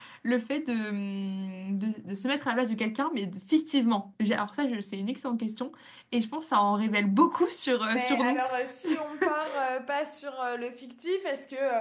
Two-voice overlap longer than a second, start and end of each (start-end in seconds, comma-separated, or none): none